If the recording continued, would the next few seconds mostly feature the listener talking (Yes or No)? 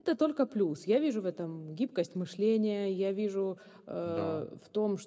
No